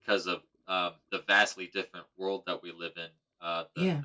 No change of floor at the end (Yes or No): Yes